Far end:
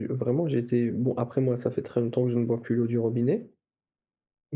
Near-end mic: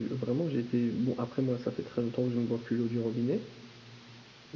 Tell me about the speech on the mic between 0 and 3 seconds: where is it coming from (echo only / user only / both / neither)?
echo only